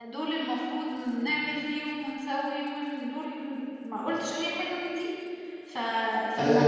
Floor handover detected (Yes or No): Yes